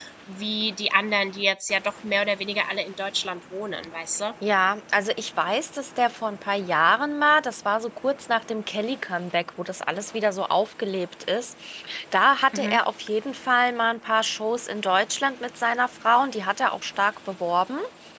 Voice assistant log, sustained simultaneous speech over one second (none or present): none